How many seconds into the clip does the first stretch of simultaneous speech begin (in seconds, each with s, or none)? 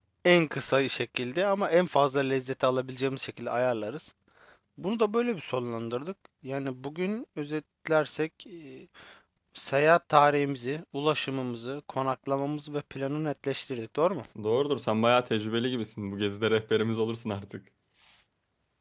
none